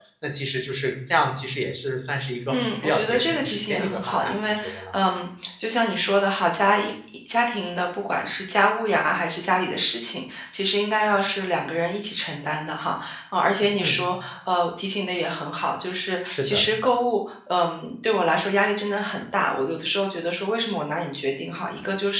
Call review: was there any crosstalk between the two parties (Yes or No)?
Yes